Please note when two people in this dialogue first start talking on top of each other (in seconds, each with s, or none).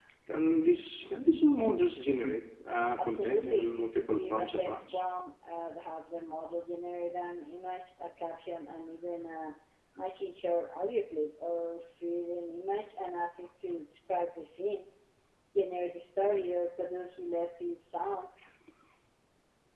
3.0 s